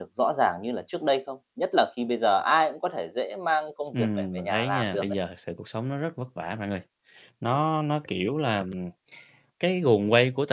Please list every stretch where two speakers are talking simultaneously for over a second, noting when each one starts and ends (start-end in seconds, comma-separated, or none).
3.9-5.2